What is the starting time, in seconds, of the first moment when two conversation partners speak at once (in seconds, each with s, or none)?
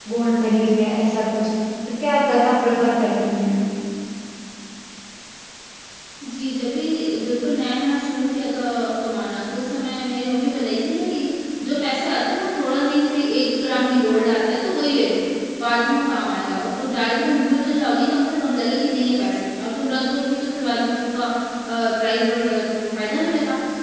none